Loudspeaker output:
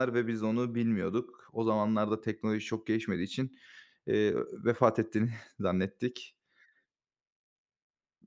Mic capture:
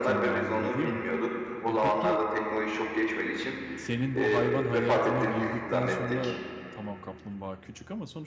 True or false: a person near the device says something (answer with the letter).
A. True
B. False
A